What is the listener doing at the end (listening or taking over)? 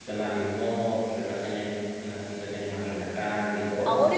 taking over